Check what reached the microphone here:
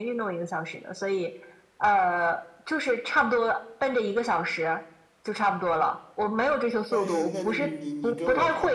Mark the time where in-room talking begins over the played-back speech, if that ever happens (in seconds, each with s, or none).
6.9 s